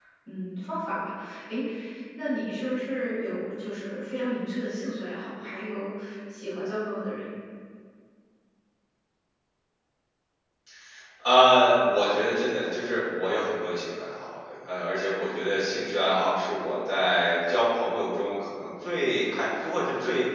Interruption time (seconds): none

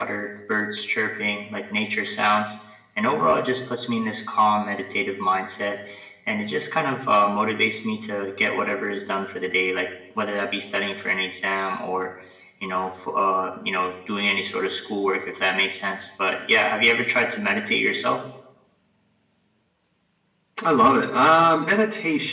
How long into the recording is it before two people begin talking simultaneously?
none

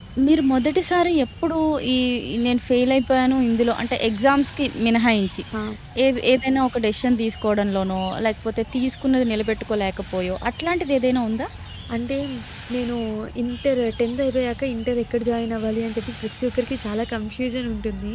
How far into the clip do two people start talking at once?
none

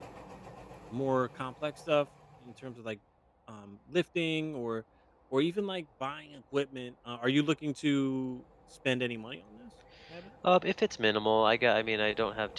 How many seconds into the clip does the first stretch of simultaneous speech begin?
none

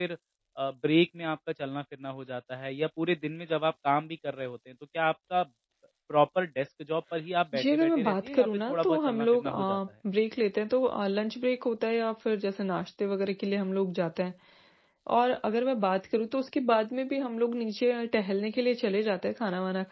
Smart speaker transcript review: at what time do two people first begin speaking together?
7.5 s

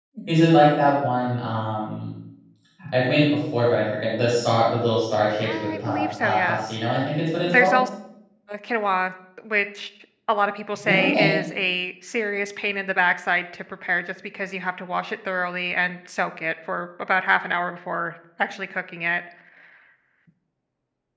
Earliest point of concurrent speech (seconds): 5.4 s

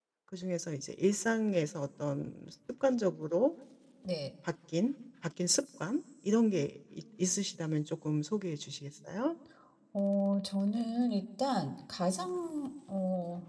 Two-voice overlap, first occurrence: none

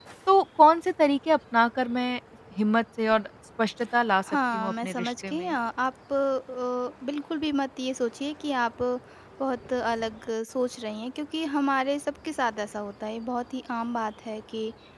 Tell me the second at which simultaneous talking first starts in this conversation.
4.3 s

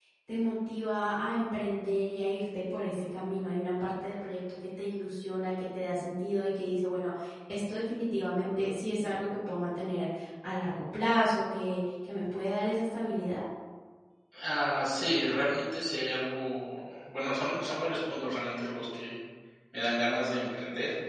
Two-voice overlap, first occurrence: none

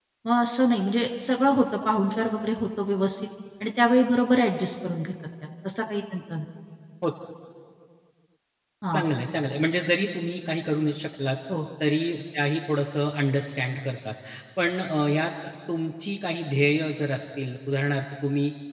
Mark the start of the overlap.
none

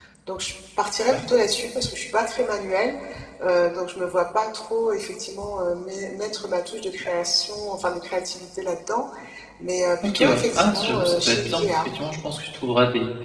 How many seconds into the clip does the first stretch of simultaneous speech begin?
10.0 s

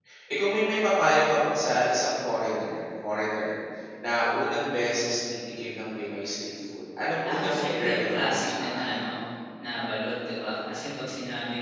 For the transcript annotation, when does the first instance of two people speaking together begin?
7.2 s

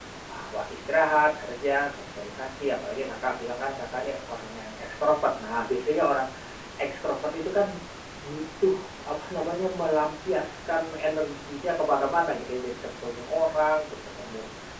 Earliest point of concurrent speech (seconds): none

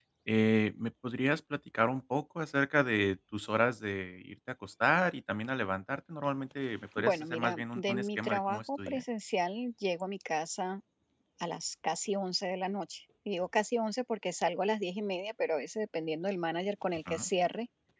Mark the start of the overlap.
7.0 s

